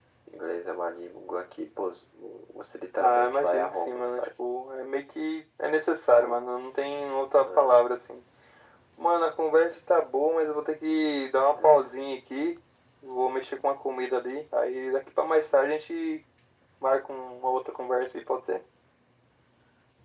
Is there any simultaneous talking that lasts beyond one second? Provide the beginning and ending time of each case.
3.0-4.3

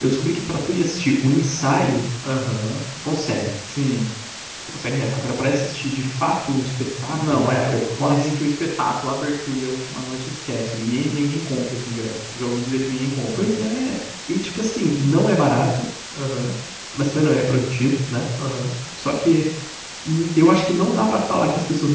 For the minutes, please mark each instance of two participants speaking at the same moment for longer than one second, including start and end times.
7.1-8.3

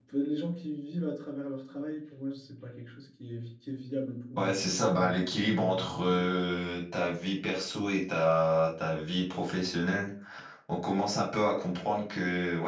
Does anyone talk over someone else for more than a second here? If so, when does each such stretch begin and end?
4.4-6.3

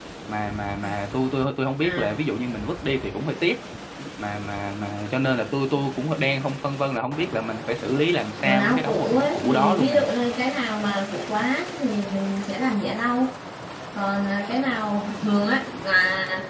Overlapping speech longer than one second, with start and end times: 8.4-10.0

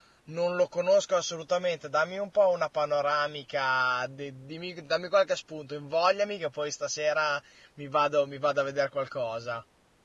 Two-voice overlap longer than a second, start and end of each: none

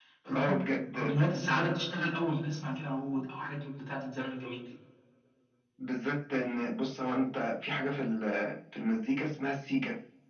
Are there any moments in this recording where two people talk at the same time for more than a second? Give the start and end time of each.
none

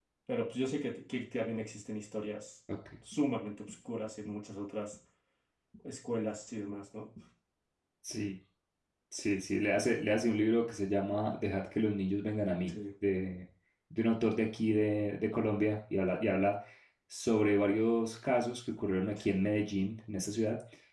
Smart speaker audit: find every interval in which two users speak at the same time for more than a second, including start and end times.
none

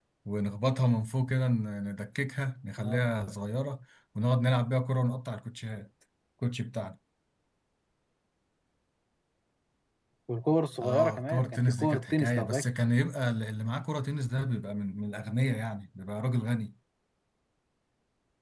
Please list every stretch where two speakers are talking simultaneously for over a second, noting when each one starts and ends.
10.8-12.7

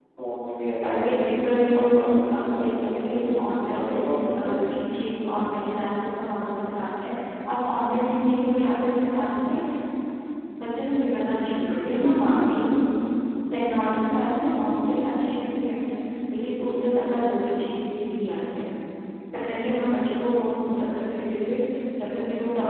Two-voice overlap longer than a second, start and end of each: 2.3-4.5

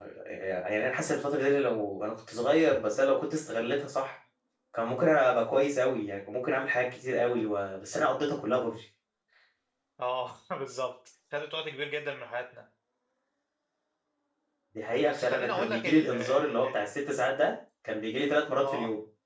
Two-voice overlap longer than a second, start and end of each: 15.1-17.0

